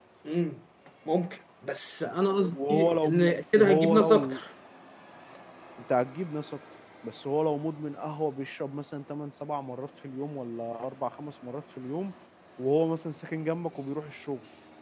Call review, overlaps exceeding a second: present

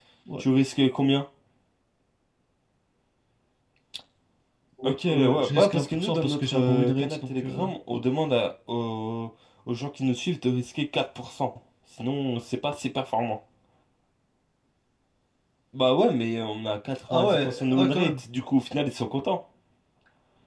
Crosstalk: present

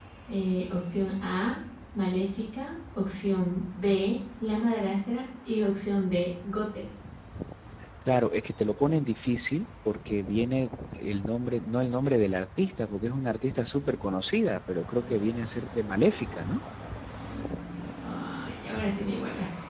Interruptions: none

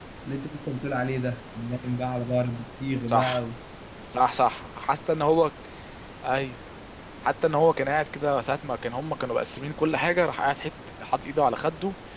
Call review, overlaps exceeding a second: none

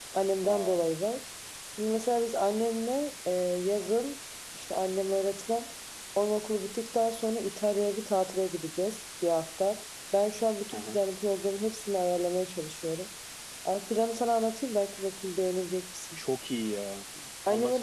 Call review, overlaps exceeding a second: none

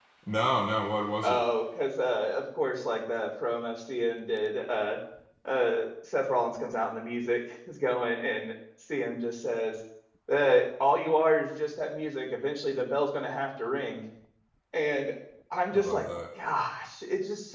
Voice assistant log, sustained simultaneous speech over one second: none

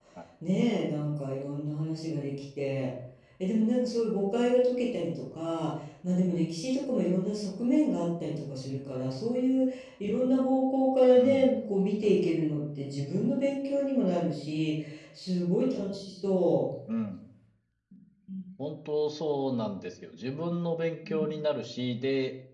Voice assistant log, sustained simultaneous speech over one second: none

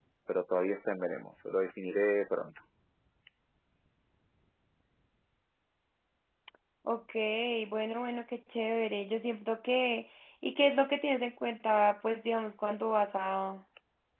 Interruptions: none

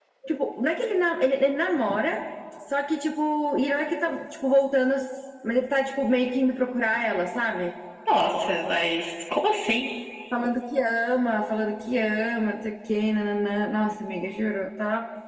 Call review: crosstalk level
none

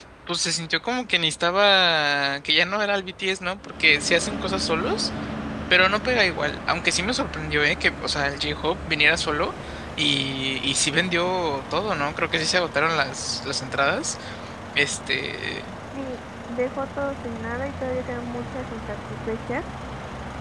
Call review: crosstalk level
none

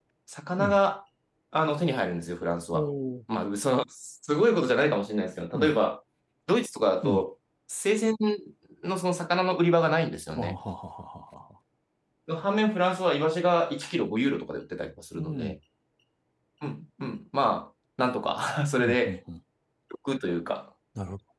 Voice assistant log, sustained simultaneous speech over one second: none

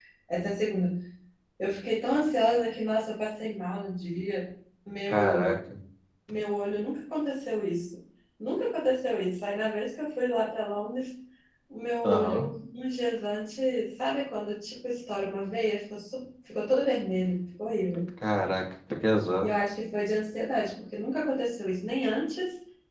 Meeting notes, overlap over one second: none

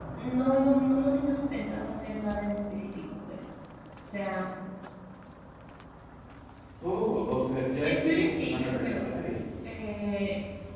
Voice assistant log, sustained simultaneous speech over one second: present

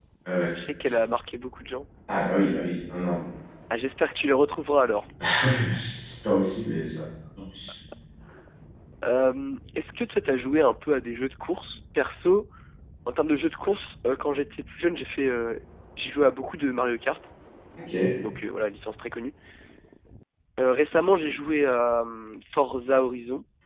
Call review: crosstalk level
none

